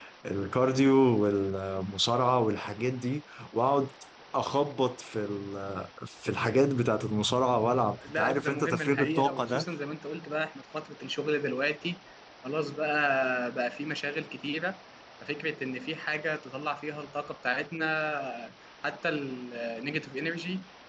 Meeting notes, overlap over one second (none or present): present